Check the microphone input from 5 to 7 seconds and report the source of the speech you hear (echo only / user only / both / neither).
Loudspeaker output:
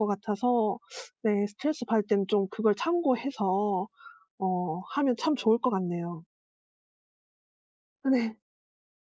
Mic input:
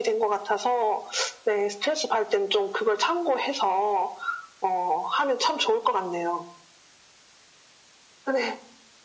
echo only